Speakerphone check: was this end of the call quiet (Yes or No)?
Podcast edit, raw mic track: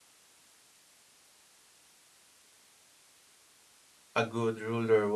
No